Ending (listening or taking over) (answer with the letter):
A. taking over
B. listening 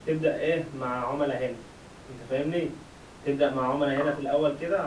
B